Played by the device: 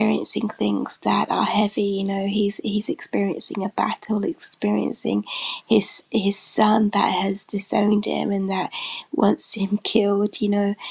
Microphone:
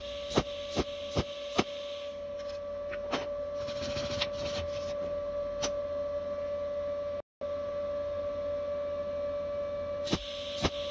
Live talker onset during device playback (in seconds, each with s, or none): none